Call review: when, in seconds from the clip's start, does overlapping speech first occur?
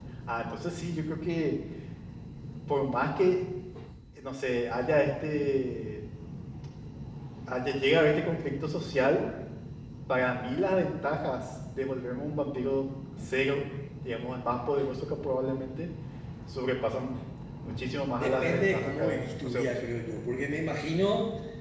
18 s

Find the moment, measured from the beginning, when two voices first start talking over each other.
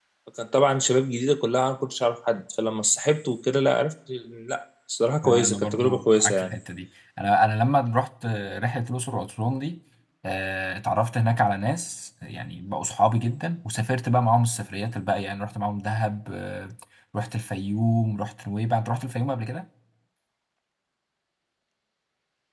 5 s

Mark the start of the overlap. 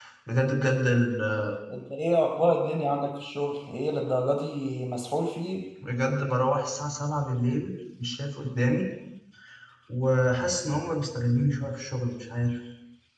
none

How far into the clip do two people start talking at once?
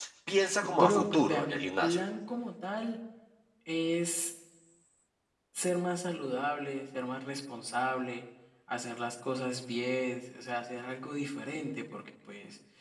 1 s

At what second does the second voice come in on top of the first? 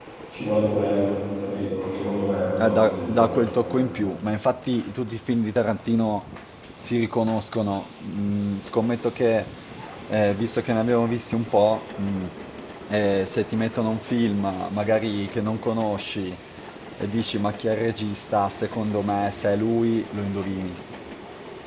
3 s

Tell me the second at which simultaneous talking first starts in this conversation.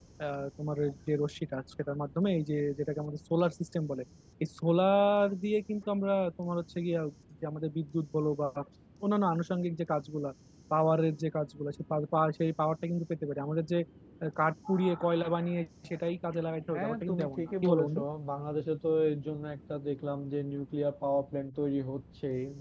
17 s

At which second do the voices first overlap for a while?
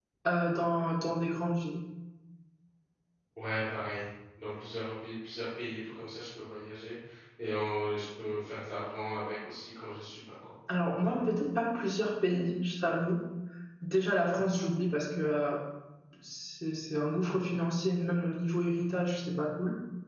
none

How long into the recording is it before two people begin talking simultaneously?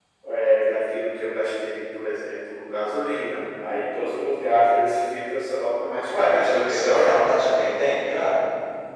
6 s

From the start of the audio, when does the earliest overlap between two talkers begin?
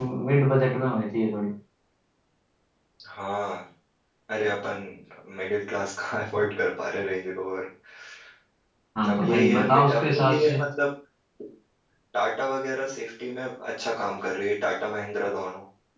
9 s

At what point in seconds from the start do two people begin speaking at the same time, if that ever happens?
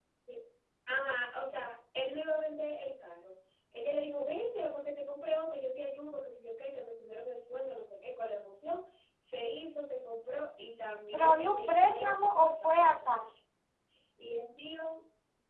11 s

